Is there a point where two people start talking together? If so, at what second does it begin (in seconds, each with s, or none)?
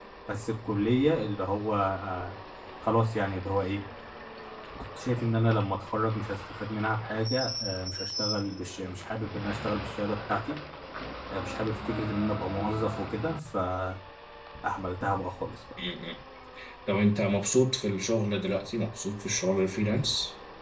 none